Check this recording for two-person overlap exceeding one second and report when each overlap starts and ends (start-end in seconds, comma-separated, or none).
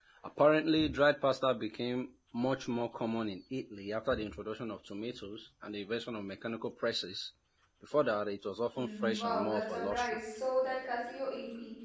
8.7-10.2